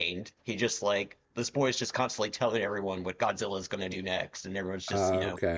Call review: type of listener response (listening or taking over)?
listening